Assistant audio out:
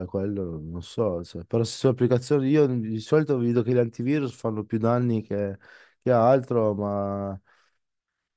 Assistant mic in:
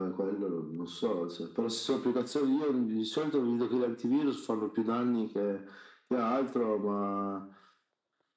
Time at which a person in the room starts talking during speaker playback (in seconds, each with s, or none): none